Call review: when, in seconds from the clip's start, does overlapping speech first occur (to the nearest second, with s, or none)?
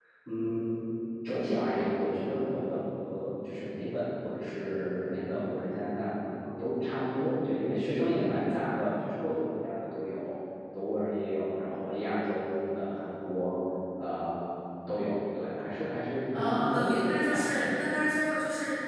16 s